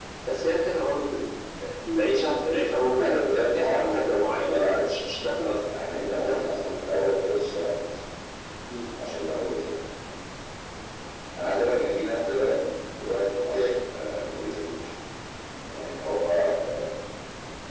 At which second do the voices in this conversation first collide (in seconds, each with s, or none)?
3.0 s